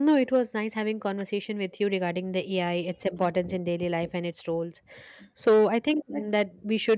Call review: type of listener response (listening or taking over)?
listening